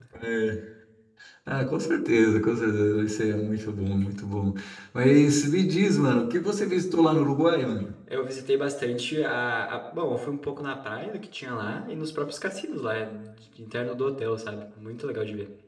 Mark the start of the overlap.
none

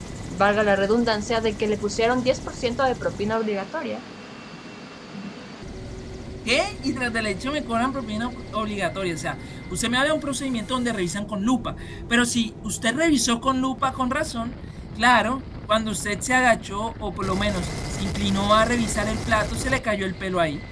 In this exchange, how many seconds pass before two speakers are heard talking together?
none

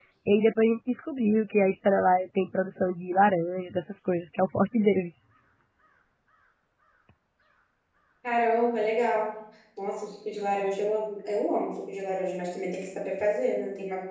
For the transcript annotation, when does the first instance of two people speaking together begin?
none

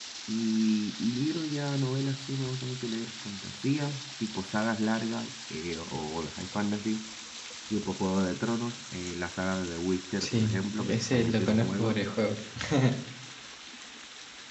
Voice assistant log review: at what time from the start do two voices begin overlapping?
10.2 s

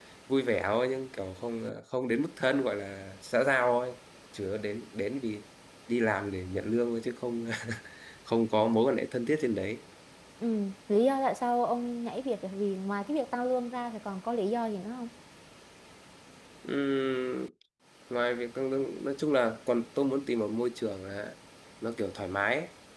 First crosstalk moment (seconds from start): none

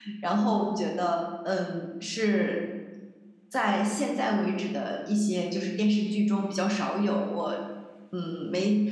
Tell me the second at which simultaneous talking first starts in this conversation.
none

